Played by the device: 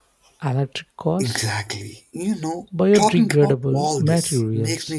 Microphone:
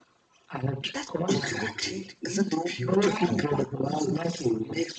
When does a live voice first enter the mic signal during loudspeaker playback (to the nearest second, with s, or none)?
1 s